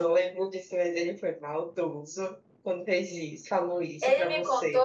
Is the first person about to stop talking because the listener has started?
Yes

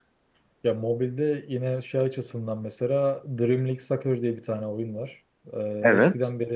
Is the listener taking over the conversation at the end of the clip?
No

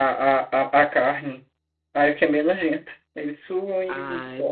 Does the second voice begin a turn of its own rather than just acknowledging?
Yes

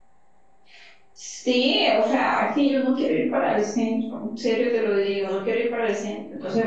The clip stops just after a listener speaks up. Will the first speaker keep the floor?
Yes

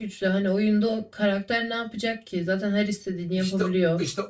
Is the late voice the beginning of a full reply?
Yes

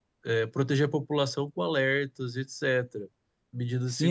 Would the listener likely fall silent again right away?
No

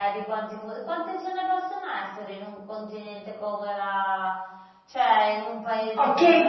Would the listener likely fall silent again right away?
No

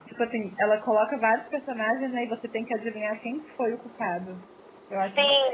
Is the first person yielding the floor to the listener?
Yes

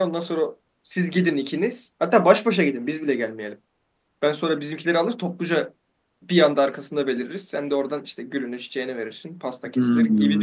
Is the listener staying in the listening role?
No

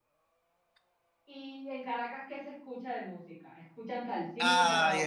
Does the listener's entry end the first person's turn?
Yes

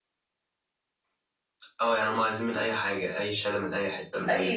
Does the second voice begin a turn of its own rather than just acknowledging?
Yes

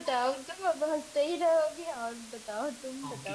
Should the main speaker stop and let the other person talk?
Yes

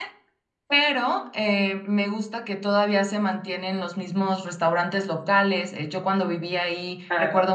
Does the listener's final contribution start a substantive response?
No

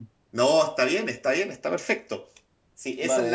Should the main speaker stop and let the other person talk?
Yes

